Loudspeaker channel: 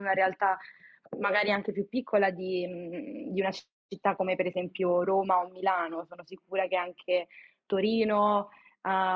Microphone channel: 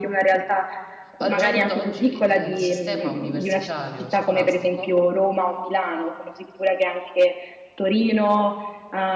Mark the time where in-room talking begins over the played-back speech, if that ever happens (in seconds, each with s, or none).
1.2 s